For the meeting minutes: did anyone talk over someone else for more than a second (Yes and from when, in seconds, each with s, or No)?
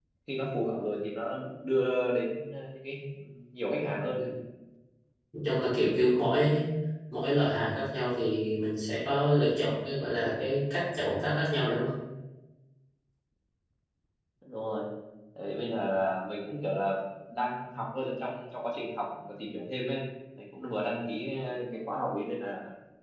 No